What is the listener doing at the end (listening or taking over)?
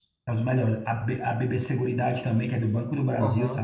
taking over